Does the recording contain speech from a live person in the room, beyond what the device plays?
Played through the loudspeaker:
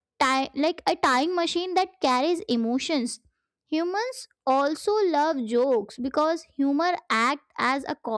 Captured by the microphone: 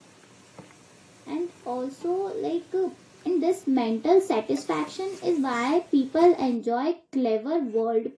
Yes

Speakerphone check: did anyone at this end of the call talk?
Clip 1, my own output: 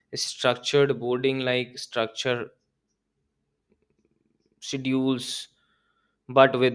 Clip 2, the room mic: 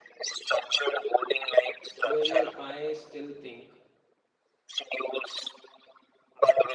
Yes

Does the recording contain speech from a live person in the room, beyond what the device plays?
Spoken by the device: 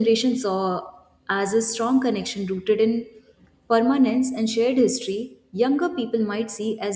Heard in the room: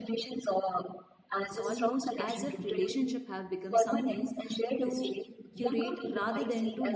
Yes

